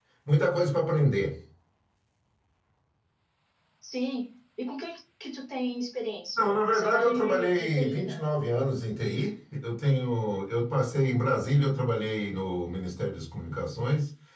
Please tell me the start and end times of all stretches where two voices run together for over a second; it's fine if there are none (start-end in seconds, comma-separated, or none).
6.4-8.2